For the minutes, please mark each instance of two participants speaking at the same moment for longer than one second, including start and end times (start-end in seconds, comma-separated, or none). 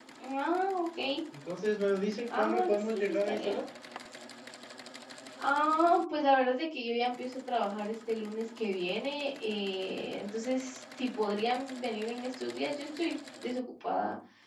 2.4-3.6